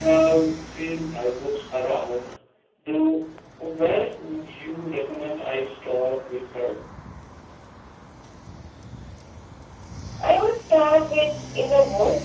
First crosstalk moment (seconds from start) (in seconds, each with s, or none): none